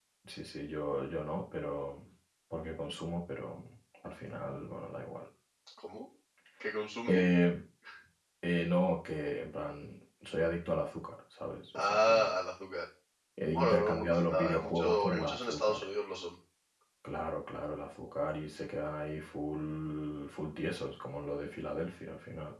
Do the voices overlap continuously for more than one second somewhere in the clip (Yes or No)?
Yes